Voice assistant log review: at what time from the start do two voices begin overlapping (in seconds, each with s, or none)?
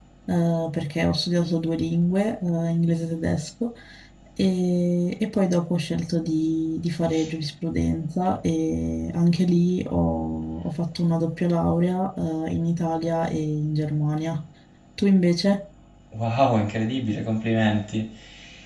none